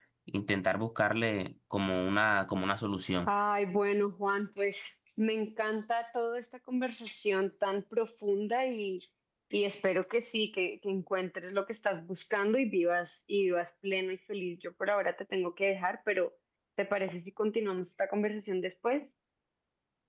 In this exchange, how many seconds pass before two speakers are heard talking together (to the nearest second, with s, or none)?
none